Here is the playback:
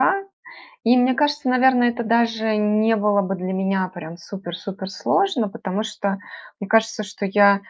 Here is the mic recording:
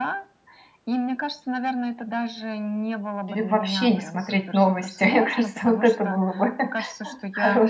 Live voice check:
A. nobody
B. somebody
B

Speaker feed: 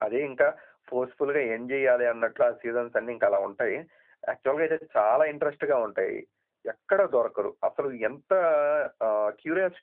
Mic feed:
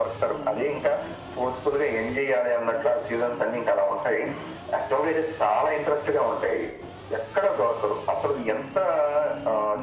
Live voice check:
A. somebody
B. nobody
B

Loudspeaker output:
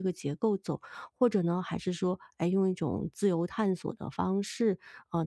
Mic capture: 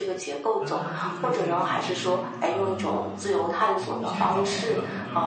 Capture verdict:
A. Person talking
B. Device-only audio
A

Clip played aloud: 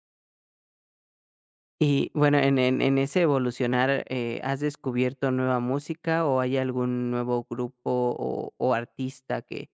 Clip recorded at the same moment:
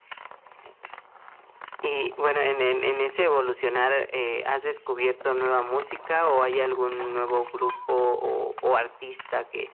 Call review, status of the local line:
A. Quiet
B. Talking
A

